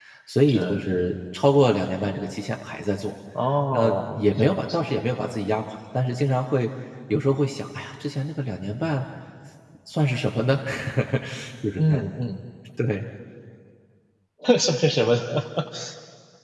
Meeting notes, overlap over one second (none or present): present